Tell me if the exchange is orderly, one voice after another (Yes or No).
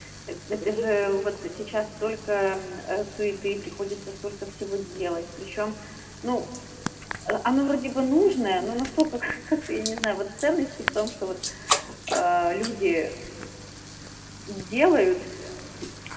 No